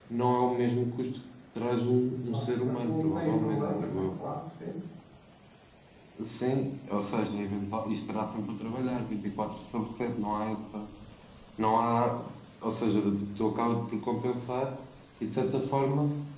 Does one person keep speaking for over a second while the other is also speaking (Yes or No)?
Yes